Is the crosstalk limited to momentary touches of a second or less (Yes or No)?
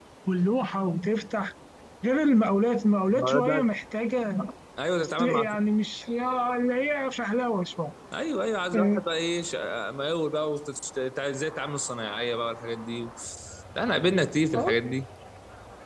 Yes